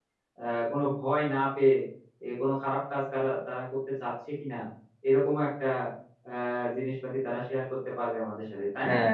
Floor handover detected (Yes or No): Yes